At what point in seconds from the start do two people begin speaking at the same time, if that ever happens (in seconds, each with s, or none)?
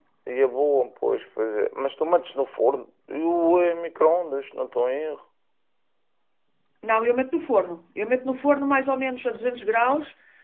none